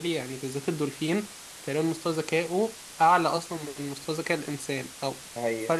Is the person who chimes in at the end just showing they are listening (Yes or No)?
Yes